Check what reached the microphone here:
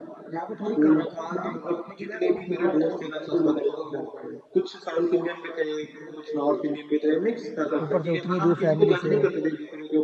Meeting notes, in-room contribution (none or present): present